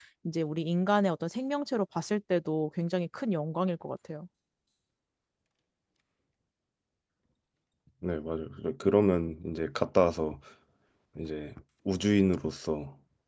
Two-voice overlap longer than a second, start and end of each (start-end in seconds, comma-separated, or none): none